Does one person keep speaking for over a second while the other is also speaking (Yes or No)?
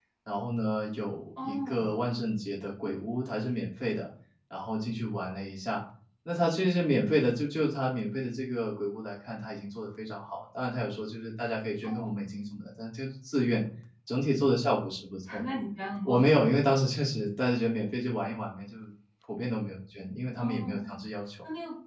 No